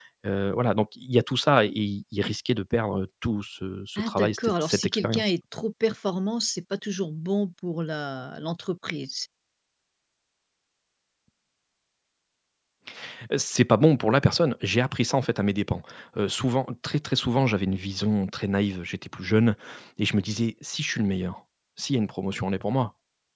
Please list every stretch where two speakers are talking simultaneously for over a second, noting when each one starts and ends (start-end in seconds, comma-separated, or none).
4.0-5.3